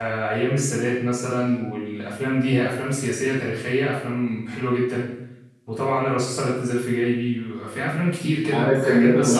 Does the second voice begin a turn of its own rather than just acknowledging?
Yes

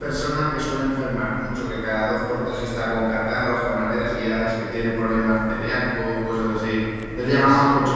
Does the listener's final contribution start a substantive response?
No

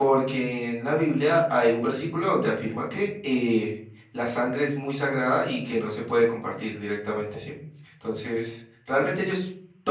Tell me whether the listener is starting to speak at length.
No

